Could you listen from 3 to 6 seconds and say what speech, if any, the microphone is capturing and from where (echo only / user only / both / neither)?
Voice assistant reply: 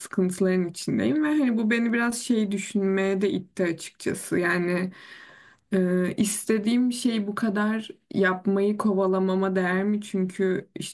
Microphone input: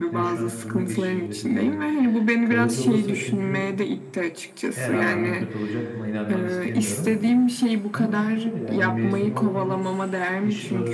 both